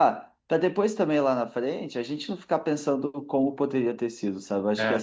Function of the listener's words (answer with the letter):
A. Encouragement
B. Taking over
A